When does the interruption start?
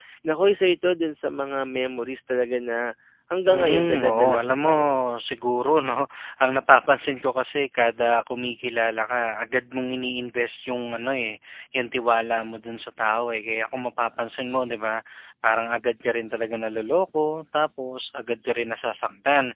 3.5 s

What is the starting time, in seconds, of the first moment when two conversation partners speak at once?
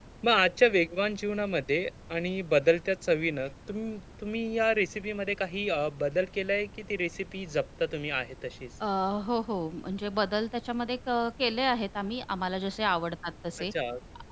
none

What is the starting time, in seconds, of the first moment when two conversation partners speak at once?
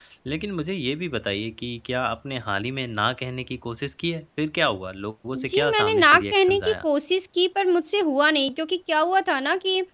5.3 s

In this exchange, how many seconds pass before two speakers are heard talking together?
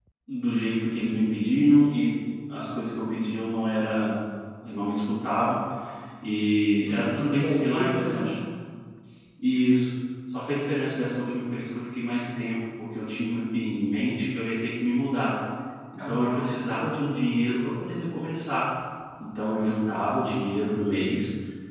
6.8 s

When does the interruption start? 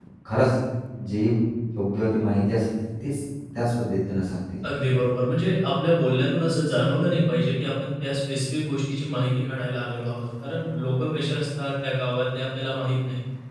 none

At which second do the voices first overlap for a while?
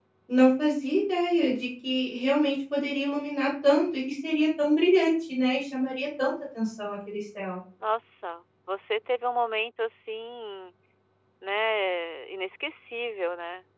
none

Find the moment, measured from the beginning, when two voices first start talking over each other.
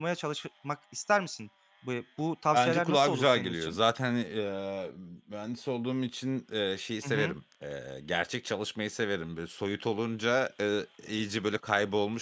2.5 s

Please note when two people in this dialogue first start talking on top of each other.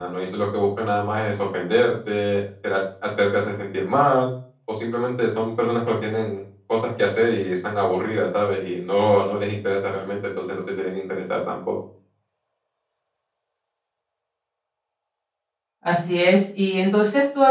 none

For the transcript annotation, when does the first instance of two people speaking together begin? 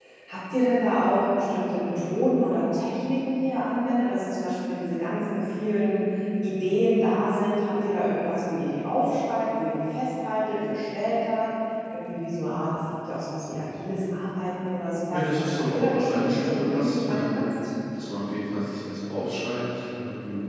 15.1 s

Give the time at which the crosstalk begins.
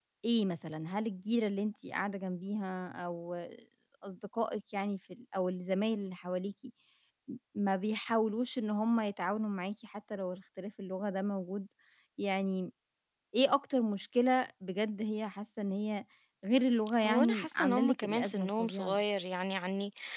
17.1 s

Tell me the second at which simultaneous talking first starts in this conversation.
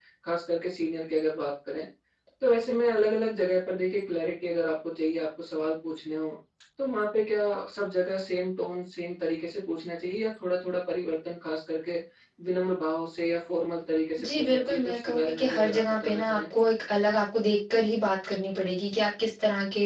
14.2 s

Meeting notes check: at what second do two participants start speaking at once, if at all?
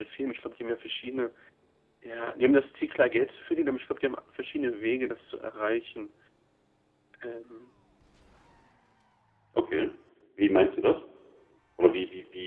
none

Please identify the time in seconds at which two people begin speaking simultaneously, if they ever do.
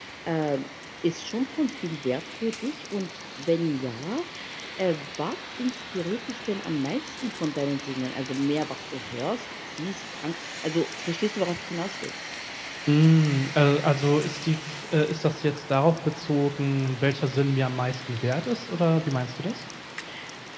none

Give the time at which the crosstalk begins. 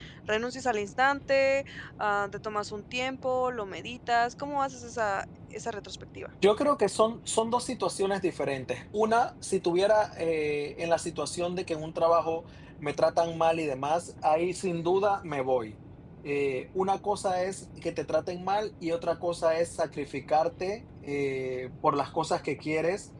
none

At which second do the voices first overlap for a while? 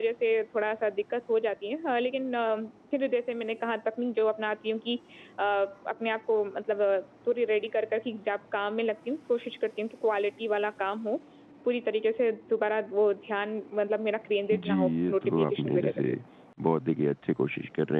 14.5 s

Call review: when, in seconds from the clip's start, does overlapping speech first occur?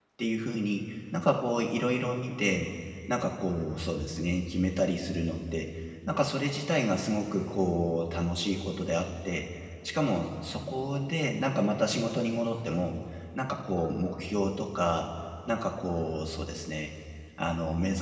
none

